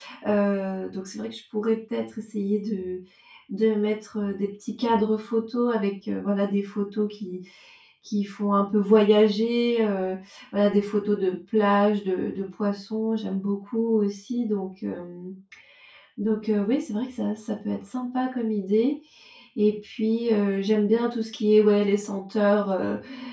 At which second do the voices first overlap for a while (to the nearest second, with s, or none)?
none